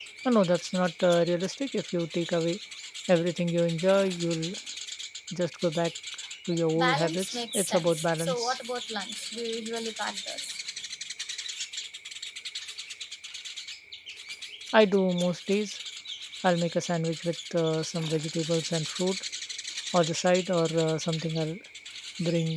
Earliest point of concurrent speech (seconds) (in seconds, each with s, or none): 6.8 s